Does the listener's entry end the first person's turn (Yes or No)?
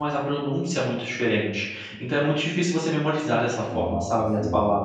No